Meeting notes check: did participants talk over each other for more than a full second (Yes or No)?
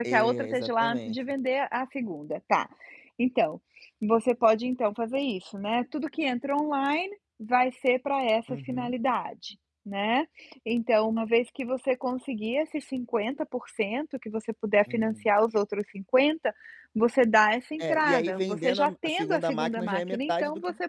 Yes